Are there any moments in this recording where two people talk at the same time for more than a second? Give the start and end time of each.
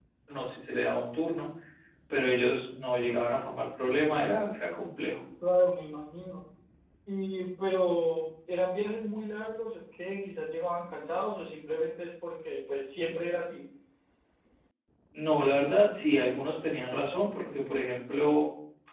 none

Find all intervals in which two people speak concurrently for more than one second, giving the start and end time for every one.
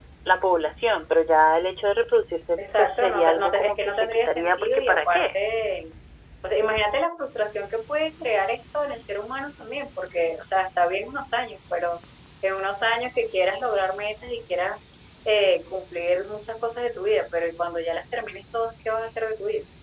2.6-5.4

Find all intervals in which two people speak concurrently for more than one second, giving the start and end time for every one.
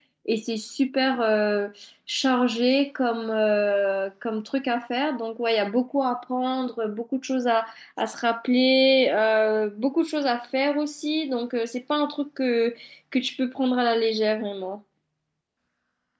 none

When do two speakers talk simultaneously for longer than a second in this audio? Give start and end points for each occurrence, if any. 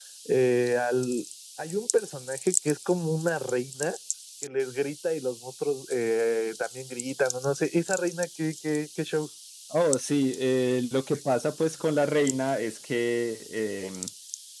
none

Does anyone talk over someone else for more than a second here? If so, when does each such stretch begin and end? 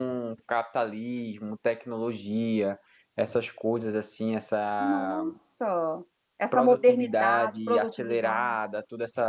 6.5-8.6

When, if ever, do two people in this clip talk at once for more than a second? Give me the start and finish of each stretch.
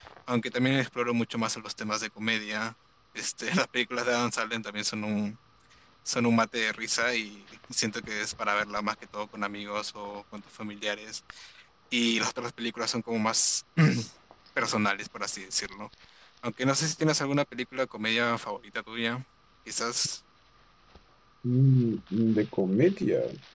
none

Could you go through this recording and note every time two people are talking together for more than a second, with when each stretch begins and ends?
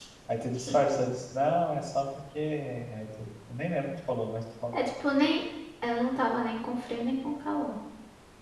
none

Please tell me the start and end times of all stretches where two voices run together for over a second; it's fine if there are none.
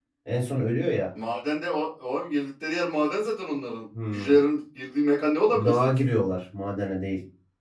none

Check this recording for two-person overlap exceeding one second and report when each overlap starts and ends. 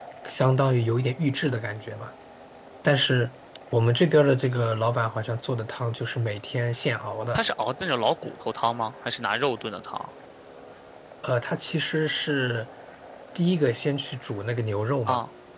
none

